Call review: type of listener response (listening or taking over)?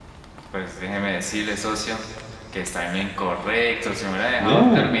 listening